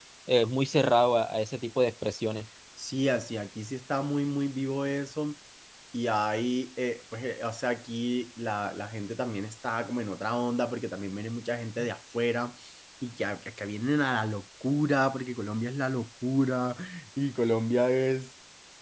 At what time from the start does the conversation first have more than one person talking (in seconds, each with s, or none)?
none